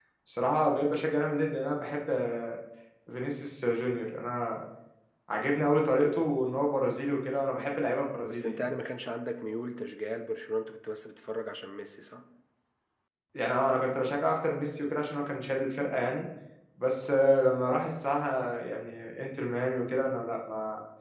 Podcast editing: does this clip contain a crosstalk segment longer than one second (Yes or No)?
No